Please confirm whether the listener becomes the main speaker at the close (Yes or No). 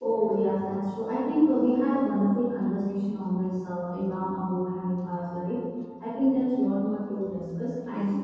No